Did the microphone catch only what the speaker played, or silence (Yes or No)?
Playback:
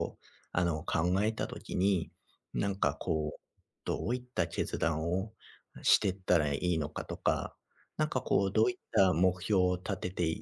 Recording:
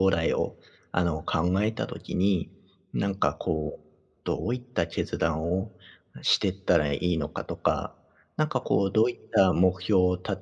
Yes